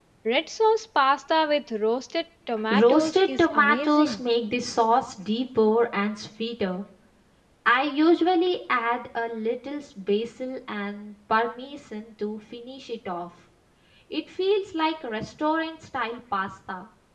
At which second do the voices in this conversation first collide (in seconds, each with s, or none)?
2.7 s